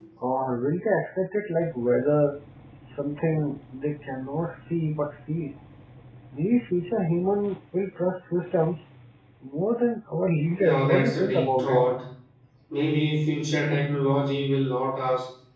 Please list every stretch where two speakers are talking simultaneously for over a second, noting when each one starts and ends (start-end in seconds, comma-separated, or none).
10.6-11.8